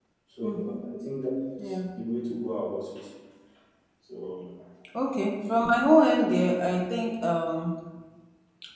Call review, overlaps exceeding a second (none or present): none